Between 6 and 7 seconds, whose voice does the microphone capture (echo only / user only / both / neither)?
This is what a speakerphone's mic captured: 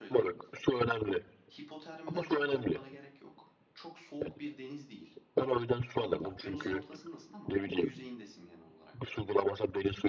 both